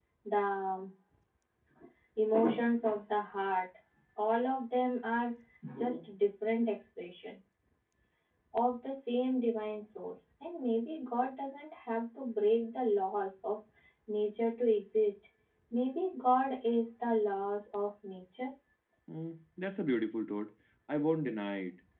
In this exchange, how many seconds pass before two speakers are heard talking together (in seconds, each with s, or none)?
none